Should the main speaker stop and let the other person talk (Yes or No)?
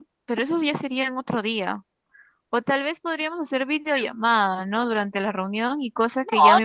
Yes